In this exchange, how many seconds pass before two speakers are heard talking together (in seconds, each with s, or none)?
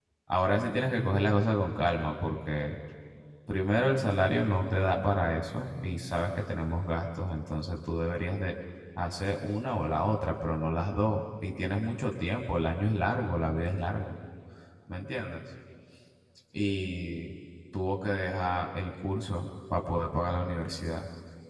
none